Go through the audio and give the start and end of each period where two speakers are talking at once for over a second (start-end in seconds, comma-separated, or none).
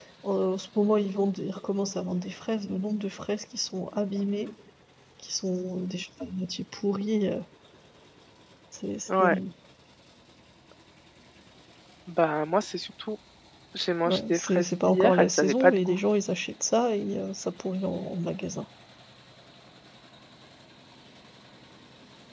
14.1-16.0